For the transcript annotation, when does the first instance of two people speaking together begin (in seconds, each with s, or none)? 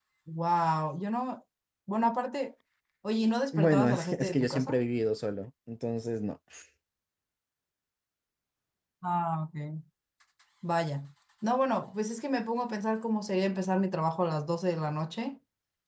3.5 s